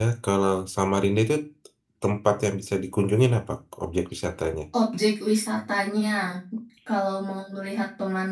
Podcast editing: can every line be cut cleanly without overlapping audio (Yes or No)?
Yes